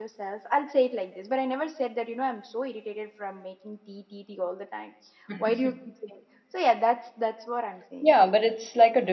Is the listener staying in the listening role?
No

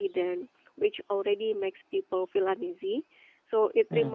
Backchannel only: Yes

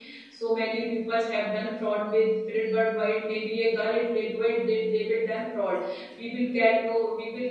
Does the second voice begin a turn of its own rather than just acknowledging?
No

